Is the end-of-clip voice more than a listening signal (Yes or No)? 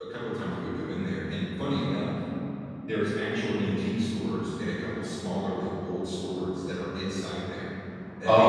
No